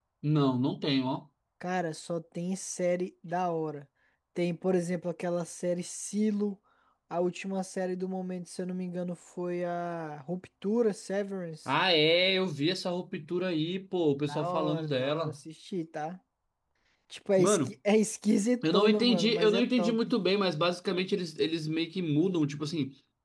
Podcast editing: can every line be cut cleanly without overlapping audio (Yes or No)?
No